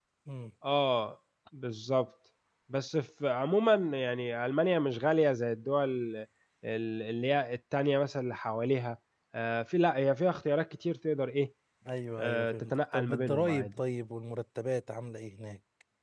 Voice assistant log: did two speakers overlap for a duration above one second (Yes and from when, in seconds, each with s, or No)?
Yes, from 12.2 s